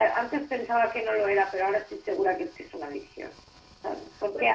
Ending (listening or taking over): listening